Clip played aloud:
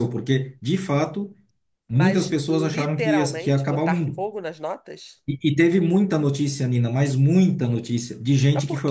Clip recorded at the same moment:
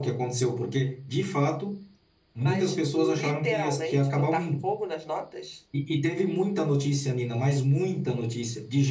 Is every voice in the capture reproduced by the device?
Yes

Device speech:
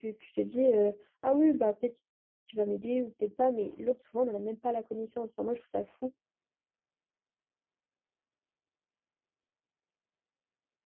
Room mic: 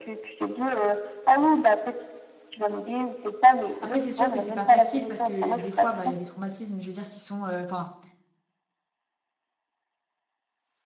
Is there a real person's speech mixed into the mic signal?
Yes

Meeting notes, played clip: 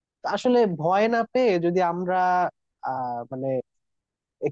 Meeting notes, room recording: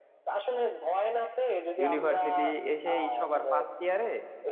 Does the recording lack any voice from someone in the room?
No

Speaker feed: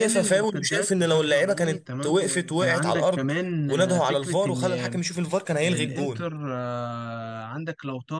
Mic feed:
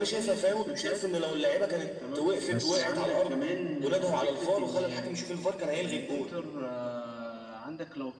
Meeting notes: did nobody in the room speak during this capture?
No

